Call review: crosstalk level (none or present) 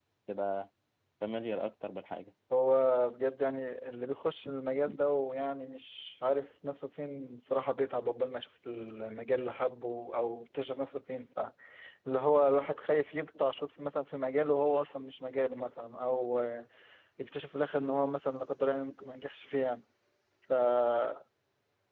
none